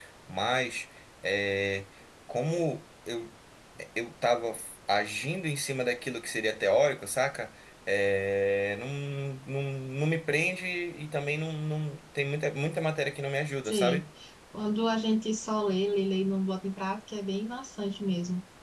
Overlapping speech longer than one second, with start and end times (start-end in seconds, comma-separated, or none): none